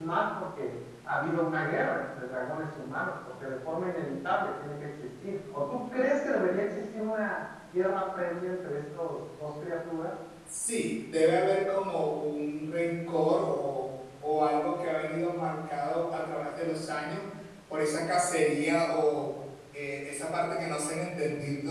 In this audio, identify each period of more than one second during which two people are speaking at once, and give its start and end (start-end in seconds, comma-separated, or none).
none